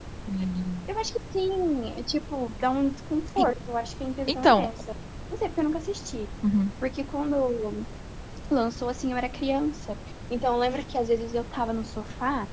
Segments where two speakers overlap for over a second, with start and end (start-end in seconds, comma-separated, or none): none